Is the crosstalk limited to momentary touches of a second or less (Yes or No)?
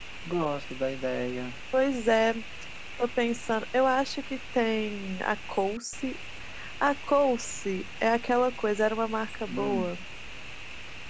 Yes